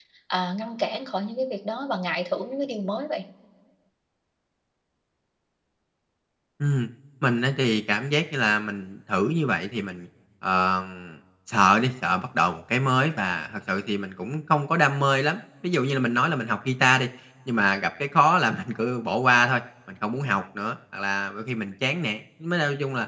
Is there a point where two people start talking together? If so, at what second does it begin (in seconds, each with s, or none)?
none